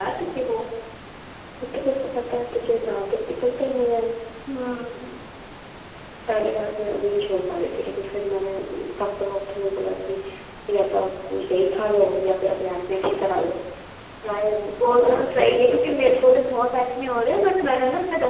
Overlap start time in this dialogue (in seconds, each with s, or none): 14.5 s